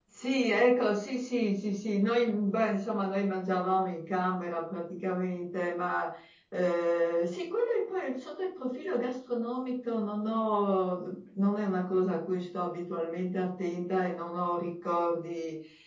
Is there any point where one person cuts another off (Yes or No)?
No